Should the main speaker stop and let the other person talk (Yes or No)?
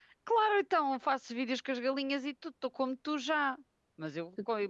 No